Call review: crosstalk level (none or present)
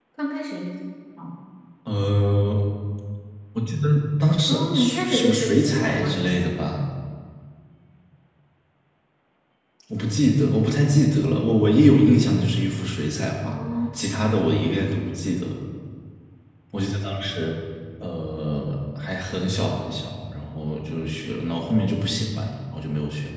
present